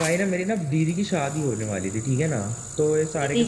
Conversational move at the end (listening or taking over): listening